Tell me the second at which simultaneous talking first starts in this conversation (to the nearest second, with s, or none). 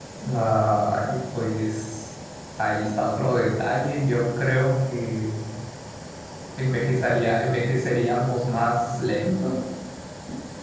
none